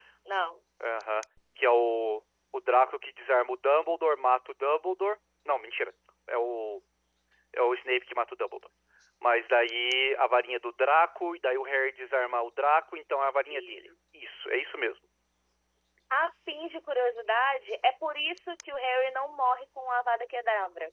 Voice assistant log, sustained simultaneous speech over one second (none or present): none